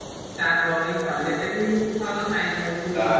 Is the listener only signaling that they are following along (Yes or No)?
No